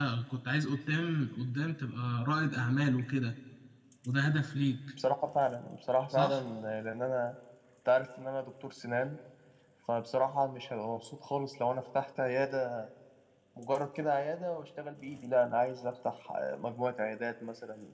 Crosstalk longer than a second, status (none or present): none